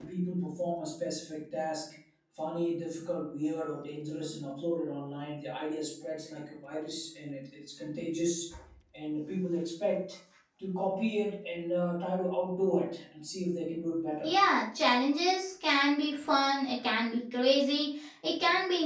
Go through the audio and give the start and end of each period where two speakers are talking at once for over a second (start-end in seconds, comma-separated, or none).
none